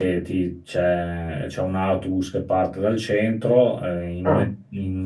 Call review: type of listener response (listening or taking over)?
listening